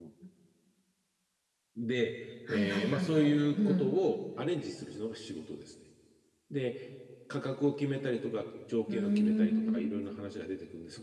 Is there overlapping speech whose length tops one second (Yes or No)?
Yes